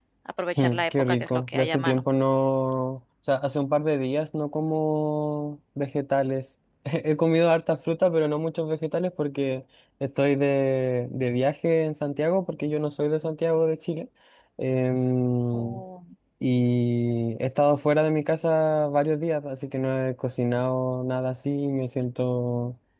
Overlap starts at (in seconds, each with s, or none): 0.6 s